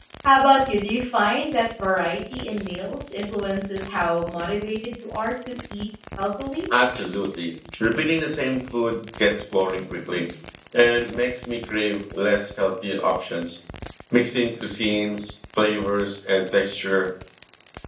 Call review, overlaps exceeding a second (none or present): none